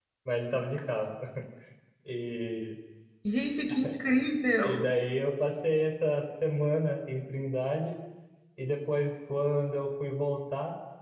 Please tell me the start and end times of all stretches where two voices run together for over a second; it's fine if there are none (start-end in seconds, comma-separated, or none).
none